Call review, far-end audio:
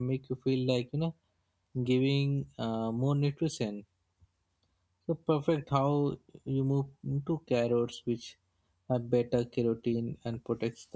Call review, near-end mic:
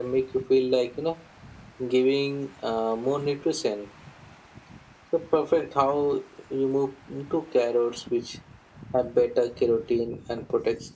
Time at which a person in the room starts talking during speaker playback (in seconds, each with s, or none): none